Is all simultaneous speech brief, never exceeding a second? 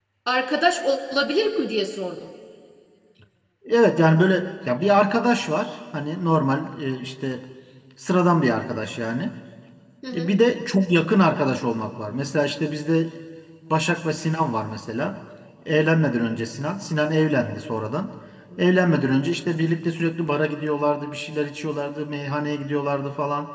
Yes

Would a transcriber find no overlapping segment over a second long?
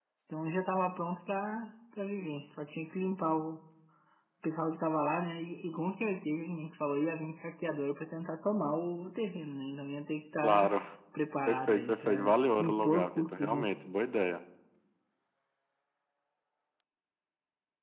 No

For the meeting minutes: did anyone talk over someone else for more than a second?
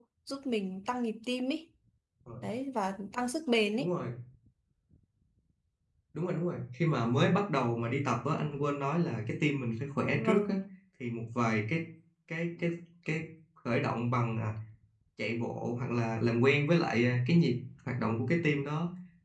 No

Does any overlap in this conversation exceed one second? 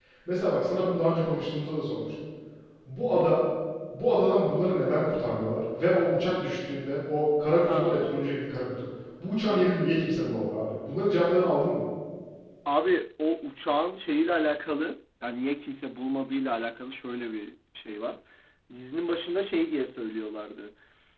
No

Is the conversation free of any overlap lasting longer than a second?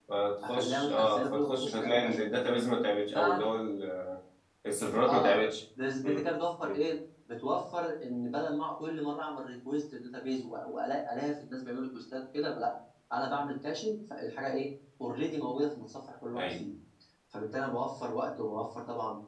No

